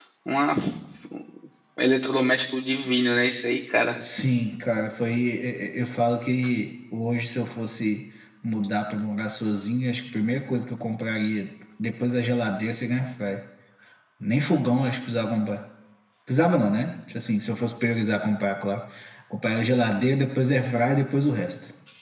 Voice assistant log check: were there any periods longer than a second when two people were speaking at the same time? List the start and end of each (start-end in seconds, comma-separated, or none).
none